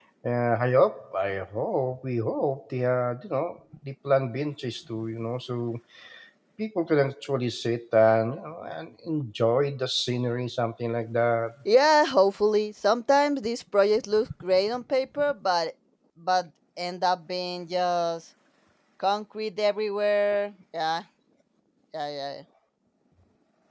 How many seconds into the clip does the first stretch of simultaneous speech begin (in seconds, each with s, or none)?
none